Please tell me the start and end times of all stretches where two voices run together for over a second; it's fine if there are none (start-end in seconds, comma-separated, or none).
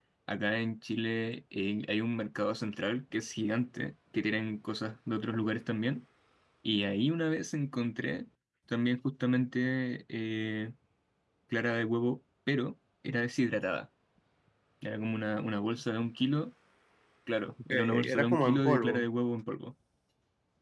17.7-19.1